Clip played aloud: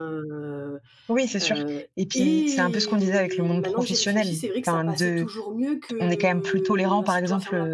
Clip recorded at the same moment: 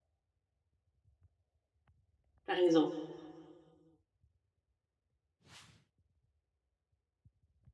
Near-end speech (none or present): present